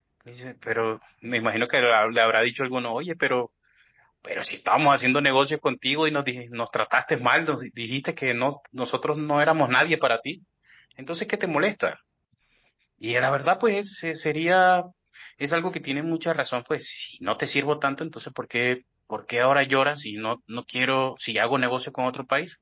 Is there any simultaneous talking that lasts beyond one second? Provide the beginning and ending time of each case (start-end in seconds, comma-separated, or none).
none